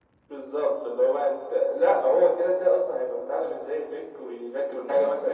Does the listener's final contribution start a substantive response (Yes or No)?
Yes